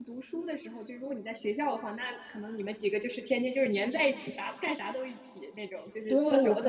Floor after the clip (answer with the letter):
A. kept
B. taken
B